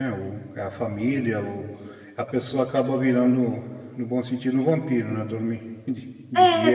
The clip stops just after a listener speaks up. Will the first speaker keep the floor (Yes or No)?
No